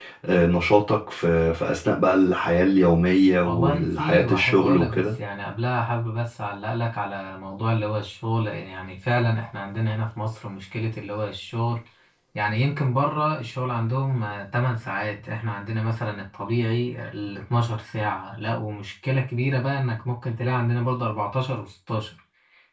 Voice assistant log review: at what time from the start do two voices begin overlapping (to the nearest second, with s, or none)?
3 s